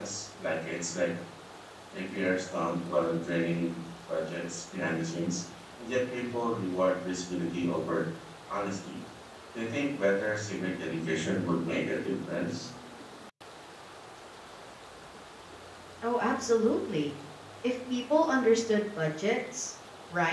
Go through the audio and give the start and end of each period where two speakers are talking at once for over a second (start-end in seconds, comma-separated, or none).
none